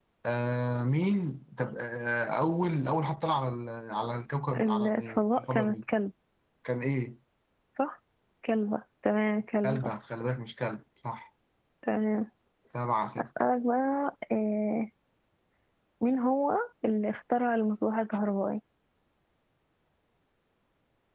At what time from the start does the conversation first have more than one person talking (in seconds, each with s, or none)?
4.5 s